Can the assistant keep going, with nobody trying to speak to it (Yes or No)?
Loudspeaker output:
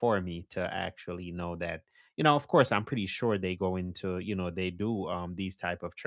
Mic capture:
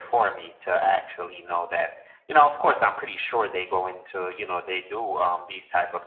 Yes